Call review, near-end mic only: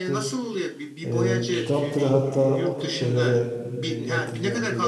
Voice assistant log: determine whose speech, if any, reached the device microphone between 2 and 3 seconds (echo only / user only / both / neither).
both